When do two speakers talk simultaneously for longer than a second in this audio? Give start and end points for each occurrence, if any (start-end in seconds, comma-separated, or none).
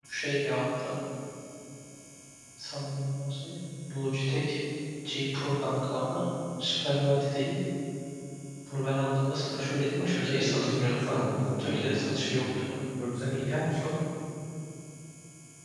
10.1-12.3